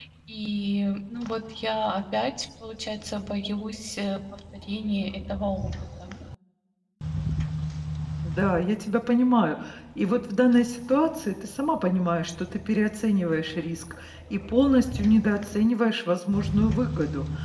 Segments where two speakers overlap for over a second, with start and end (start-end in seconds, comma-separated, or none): none